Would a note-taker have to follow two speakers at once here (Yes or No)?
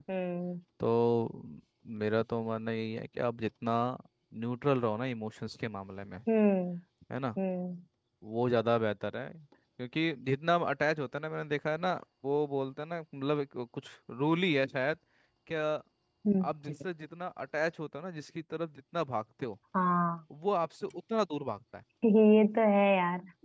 No